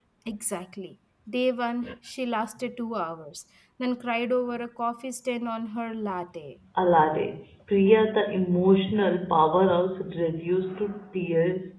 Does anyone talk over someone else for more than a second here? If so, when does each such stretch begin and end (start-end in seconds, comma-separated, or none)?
none